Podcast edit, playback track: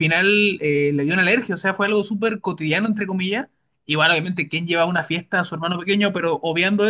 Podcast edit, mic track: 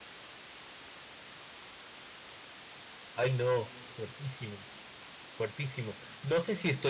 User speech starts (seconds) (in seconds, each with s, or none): 3.1 s